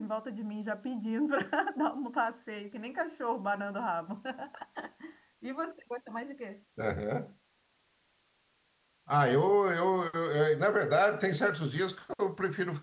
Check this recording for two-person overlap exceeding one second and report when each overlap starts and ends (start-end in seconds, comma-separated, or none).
none